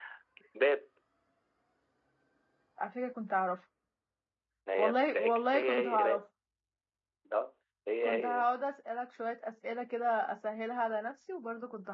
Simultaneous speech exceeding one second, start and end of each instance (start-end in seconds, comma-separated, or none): 4.8-6.2